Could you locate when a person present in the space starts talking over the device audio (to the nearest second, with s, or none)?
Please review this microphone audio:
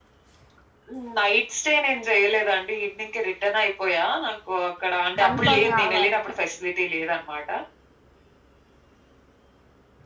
5 s